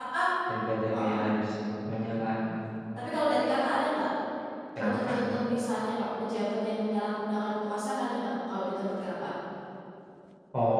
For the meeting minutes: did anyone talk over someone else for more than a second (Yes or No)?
No